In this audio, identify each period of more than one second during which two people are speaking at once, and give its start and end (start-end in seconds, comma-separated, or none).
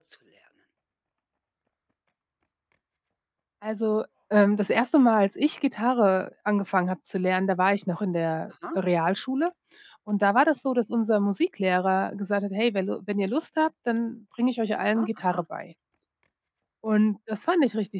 none